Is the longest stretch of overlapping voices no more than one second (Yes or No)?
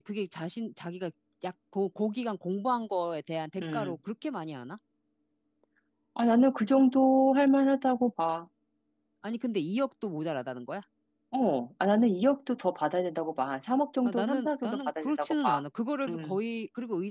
No